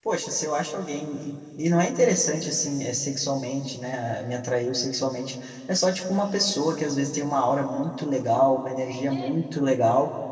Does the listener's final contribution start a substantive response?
No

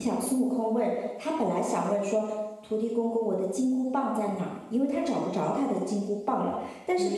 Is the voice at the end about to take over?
No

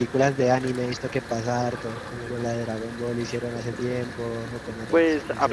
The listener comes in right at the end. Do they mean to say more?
Yes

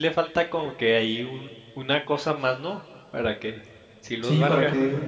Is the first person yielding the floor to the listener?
Yes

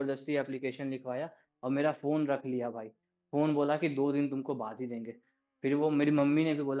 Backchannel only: Yes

